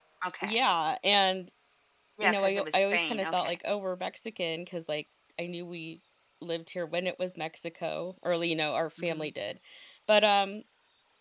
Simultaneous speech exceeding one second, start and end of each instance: 2.2-3.6

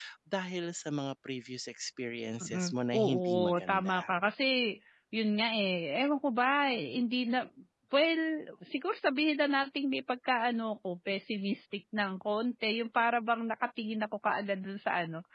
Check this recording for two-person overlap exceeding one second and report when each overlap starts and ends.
2.4-4.1

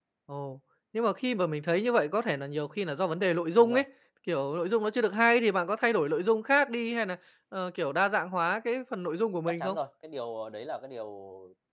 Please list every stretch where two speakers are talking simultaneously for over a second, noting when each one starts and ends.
none

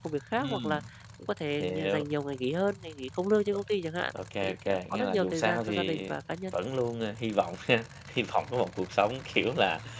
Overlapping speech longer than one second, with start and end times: 4.4-6.1

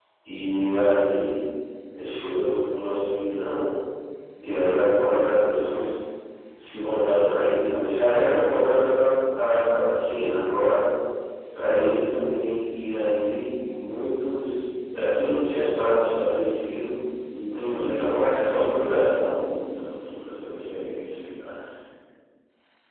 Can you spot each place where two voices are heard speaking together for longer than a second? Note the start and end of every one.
17.5-19.0

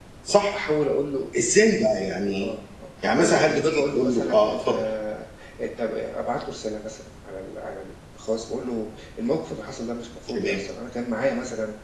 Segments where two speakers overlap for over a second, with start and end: 3.2-4.7

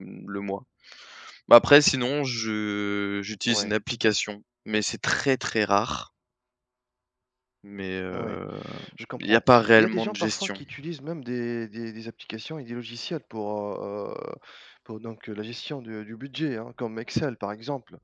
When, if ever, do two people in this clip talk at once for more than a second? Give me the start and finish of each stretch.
9.2-10.6

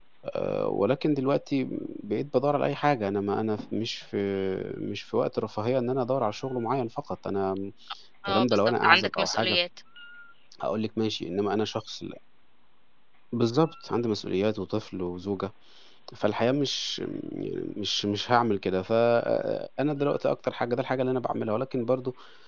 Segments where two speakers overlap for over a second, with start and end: 8.3-9.6

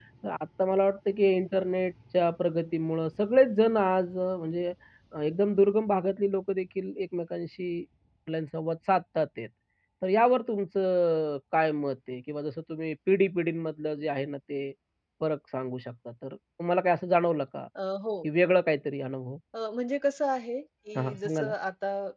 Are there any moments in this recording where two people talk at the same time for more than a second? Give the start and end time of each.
none

